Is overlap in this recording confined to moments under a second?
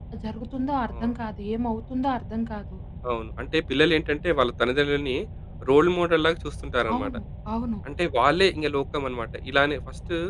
Yes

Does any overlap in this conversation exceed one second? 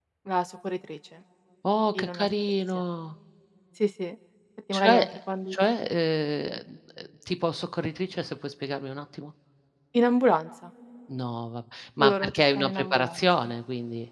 Yes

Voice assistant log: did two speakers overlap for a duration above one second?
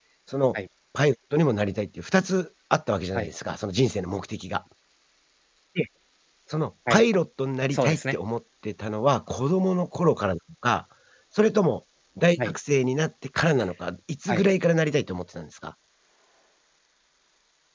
No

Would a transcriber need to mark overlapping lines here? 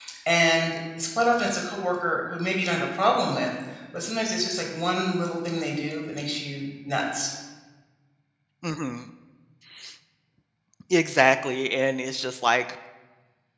No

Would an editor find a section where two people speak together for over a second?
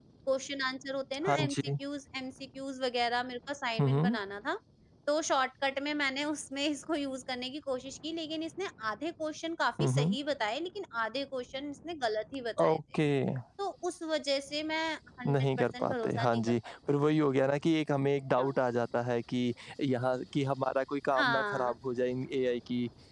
Yes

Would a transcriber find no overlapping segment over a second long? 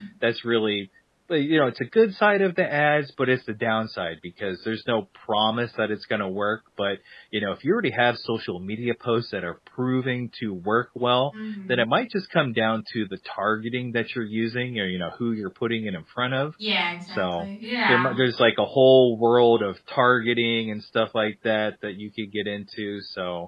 Yes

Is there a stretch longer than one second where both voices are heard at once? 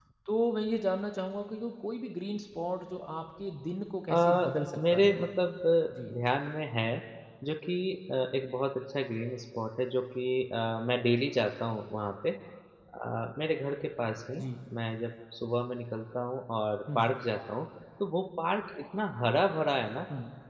No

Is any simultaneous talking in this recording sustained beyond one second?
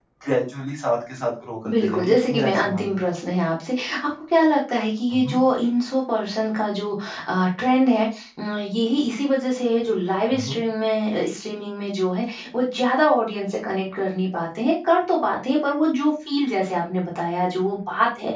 Yes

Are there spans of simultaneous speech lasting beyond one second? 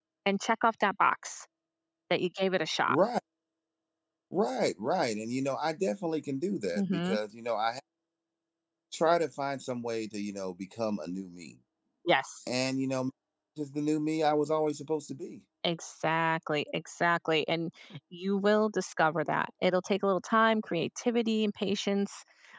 No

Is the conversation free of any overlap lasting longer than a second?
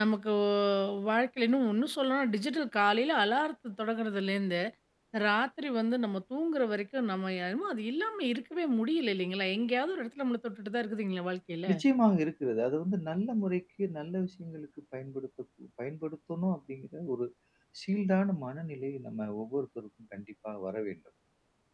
Yes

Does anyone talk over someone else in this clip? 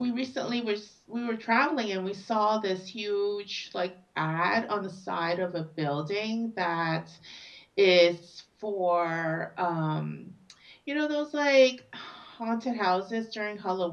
No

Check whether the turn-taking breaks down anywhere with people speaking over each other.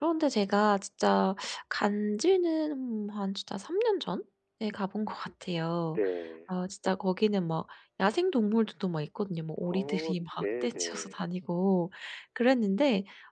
Yes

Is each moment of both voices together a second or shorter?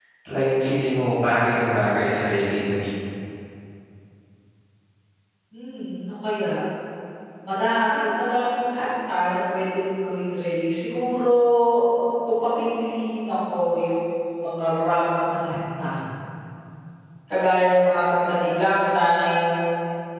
Yes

